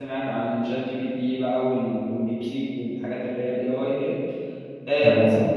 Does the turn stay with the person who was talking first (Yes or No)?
Yes